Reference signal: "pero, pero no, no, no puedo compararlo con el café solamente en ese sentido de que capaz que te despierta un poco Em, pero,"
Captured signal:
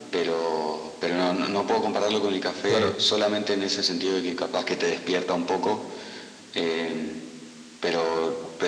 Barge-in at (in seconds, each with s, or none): 2.7 s